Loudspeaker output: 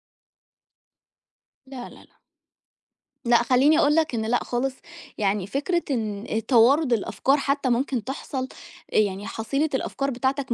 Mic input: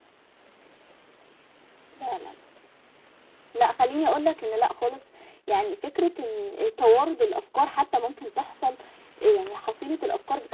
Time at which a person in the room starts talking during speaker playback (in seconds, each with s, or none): none